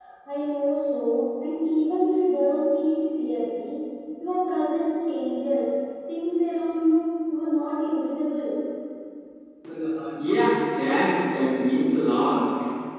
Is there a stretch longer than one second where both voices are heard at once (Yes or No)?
No